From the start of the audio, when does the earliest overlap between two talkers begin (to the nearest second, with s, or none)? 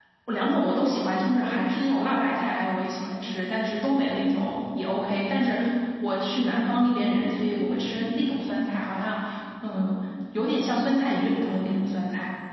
none